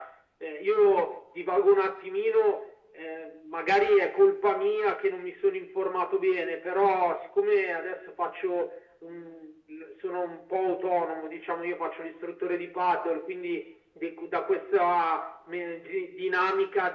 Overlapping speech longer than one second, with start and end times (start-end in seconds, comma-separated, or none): none